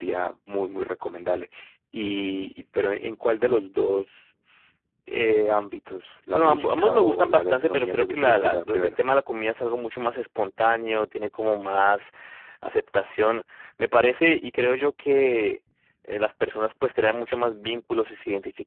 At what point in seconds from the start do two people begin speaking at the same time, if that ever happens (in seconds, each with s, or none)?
6.3 s